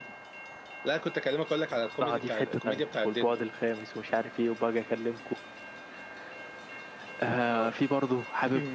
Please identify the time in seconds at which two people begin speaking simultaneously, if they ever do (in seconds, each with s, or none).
2.0 s